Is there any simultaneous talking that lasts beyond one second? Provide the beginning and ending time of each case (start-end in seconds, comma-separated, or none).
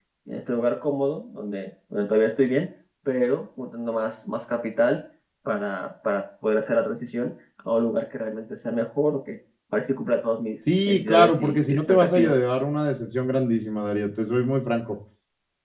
10.9-12.4